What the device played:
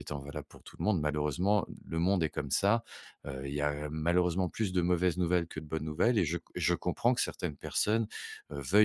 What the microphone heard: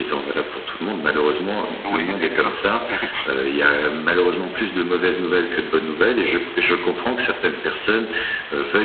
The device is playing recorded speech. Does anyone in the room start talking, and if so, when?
2 s

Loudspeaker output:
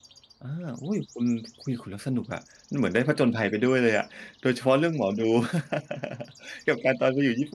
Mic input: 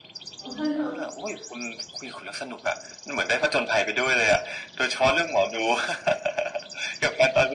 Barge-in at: 0 s

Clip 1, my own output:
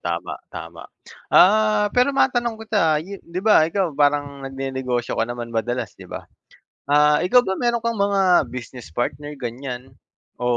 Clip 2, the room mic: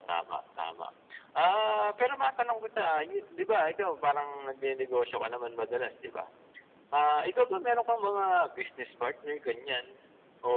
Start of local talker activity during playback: none

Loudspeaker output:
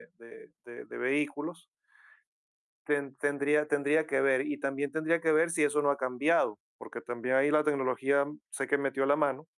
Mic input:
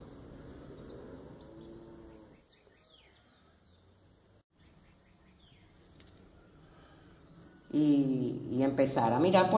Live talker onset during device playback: 8 s

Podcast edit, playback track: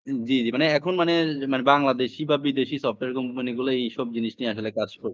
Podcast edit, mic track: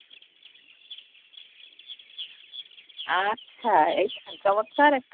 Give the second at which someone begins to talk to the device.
3 s

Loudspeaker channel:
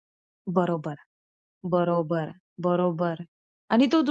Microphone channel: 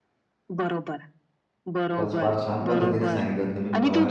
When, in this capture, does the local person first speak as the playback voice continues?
2 s

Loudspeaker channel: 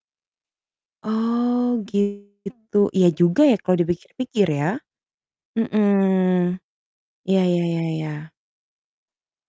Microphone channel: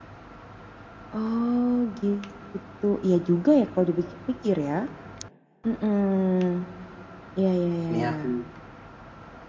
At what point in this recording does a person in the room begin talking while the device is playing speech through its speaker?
8 s

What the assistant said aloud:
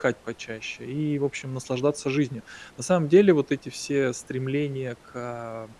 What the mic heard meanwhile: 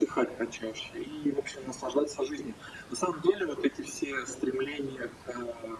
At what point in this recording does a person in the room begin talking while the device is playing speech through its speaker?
none

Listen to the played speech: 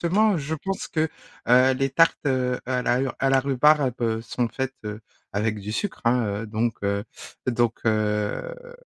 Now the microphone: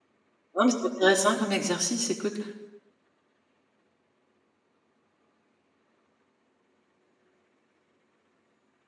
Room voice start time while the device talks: 1 s

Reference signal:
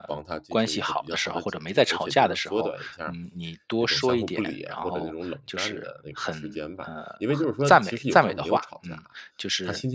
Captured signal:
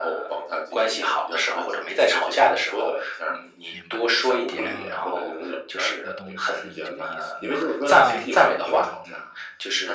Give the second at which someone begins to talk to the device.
4 s

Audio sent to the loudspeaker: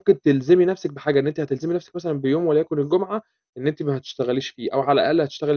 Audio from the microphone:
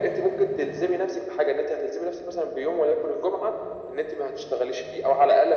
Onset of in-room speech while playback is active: none

